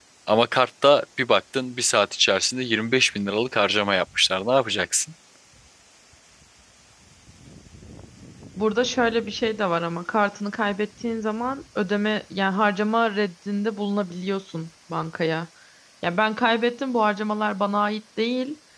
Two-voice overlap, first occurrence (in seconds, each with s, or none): none